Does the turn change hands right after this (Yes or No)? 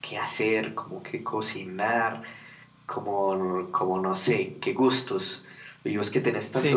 No